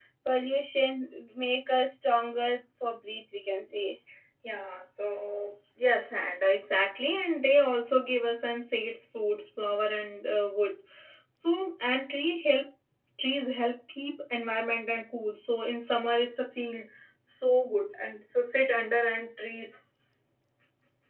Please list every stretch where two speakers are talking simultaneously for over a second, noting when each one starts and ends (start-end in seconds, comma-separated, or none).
none